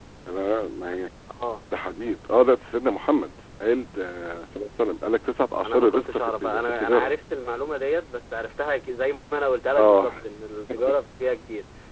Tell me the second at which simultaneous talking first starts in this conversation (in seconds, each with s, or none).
5.6 s